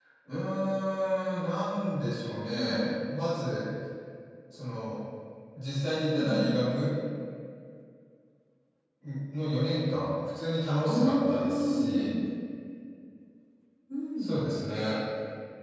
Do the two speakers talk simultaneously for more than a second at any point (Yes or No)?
Yes